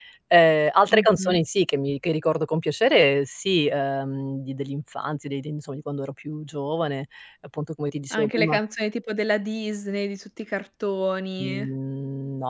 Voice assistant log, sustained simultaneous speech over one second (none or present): none